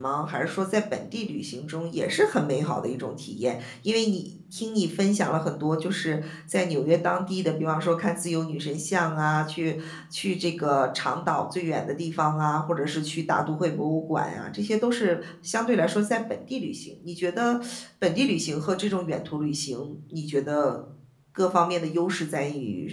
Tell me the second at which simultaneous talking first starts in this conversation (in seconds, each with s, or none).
none